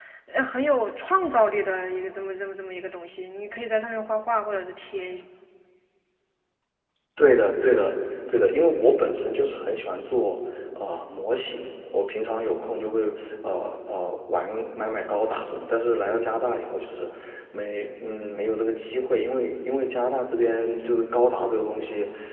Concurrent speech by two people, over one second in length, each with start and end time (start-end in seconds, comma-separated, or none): none